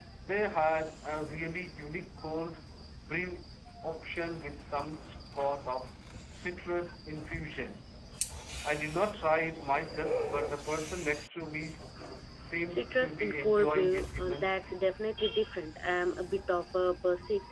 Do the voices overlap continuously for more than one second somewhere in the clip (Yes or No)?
Yes